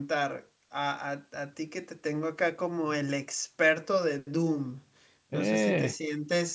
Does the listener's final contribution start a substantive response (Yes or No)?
No